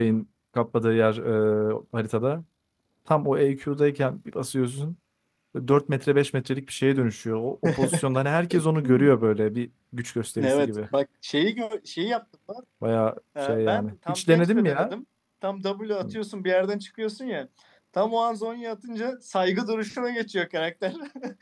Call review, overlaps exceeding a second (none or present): present